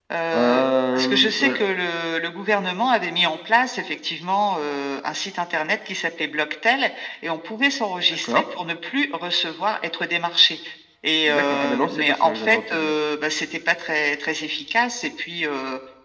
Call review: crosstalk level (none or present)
present